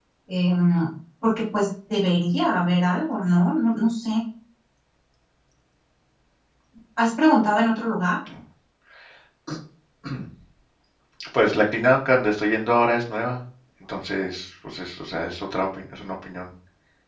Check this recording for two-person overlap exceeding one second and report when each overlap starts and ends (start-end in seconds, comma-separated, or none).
none